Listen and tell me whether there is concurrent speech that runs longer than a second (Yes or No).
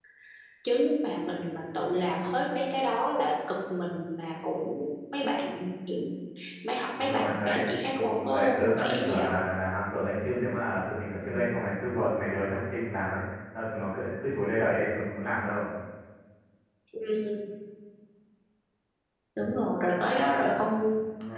Yes